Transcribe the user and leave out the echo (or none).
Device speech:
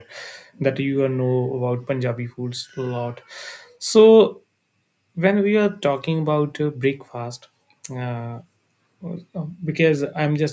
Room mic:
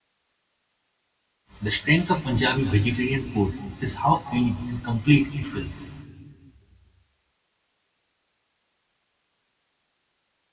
The strength of Punjabi vegetarian food is how filling and complete it feels.